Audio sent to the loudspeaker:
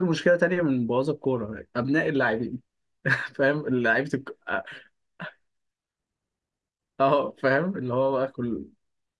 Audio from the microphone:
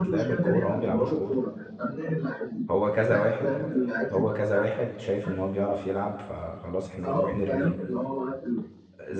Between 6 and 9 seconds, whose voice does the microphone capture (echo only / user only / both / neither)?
both